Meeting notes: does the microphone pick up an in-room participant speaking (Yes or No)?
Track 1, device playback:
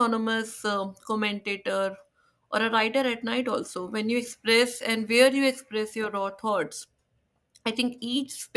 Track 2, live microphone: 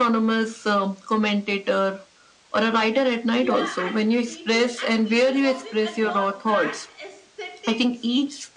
Yes